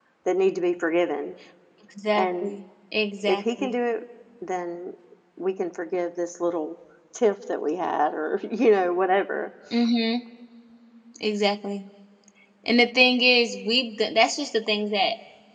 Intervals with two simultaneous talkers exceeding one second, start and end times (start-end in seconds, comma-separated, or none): none